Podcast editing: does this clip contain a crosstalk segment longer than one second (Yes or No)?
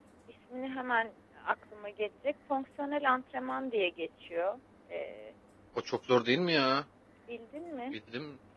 No